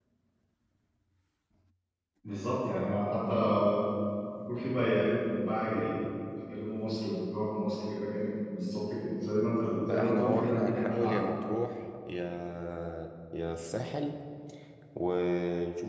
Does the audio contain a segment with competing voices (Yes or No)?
Yes